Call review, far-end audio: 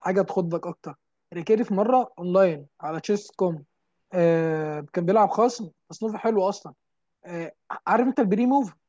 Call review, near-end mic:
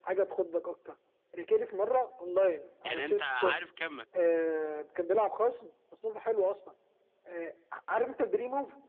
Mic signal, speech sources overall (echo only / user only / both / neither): both